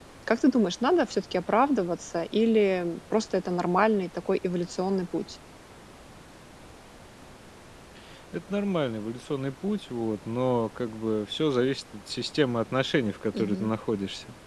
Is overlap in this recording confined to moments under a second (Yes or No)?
Yes